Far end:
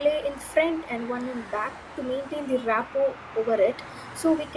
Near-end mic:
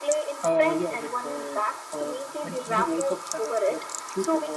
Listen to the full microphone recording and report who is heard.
both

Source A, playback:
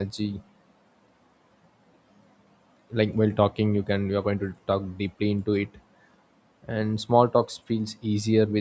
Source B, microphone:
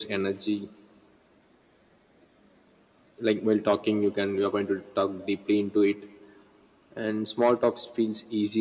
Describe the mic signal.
echo only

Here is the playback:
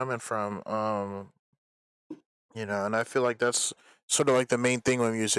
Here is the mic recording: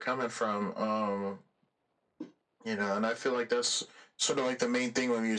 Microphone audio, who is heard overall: echo only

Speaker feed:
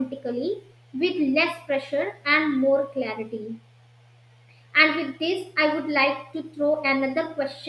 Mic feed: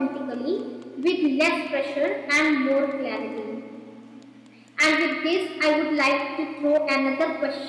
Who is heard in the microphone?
echo only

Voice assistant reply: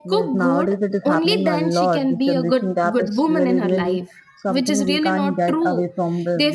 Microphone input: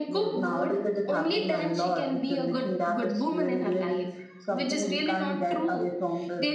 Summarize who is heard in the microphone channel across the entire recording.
echo only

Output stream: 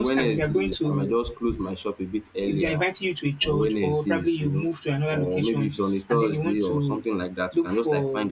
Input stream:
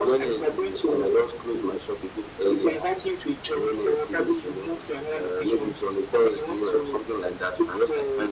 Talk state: echo only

